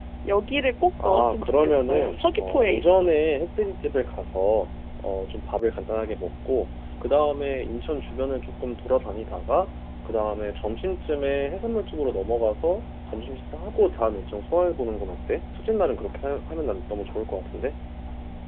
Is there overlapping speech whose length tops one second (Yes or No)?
Yes